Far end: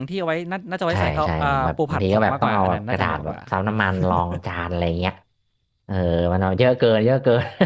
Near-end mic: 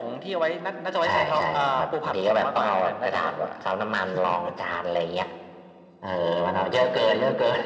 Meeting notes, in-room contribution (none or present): none